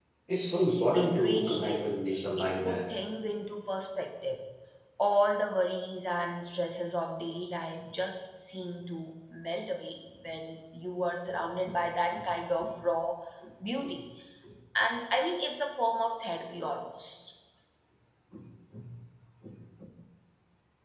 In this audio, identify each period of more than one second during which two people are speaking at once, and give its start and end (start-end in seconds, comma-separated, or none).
0.9-2.8